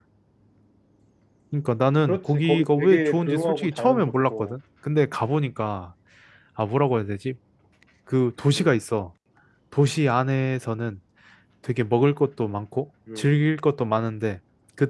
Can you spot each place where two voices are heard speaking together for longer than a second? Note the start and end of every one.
2.0-4.5

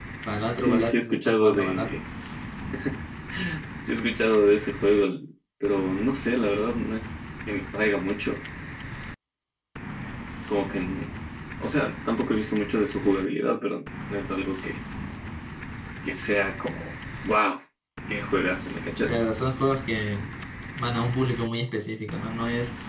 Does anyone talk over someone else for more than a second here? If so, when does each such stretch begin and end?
0.6-2.0

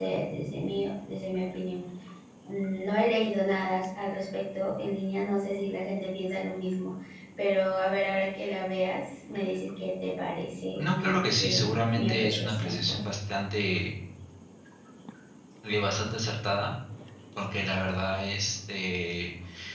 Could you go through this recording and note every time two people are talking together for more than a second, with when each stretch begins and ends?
10.8-13.0

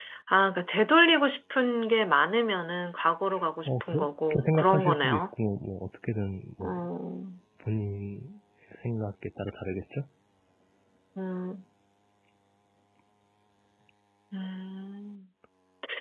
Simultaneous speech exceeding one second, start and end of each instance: 3.6-5.2

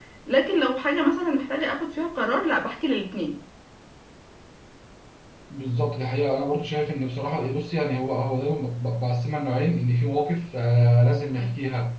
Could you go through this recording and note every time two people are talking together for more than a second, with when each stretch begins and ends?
none

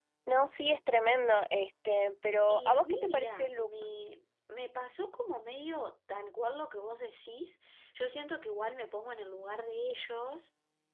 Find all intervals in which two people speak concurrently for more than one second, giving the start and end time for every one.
2.5-3.7

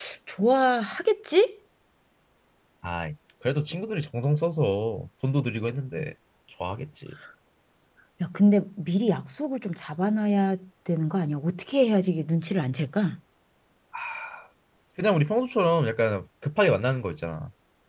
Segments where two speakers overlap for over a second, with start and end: none

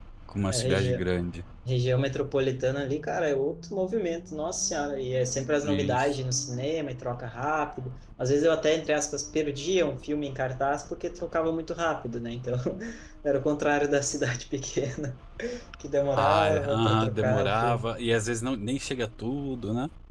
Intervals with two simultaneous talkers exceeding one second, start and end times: 16.1-17.9

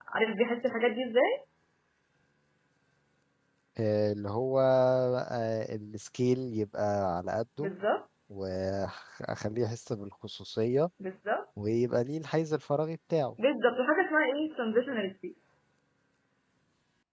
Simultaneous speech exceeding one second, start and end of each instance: none

